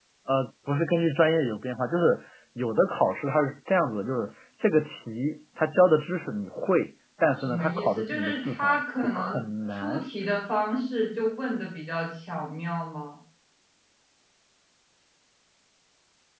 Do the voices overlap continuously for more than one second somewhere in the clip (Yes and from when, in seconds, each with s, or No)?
Yes, from 7.4 s